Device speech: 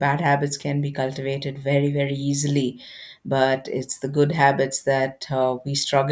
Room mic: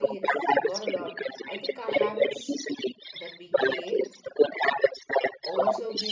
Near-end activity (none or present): present